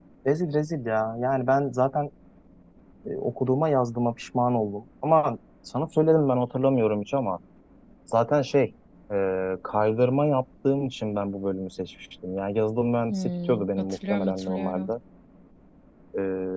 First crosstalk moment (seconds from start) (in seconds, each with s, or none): 13.1 s